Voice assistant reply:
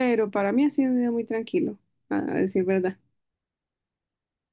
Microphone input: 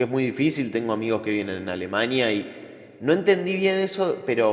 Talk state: user only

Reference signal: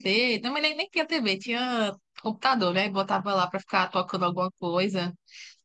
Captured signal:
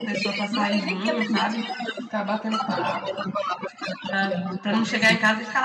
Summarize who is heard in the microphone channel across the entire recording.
both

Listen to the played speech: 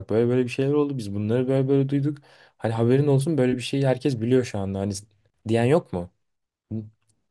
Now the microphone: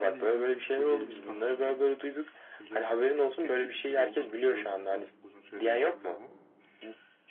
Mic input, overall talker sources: both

